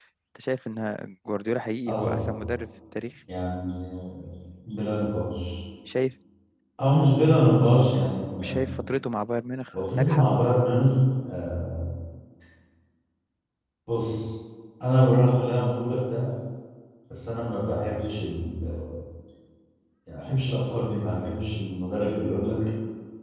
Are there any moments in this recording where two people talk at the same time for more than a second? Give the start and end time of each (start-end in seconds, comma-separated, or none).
none